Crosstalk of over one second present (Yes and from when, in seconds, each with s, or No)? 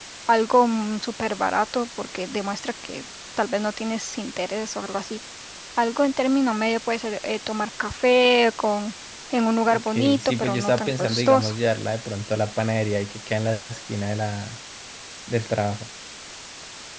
Yes, from 9.6 s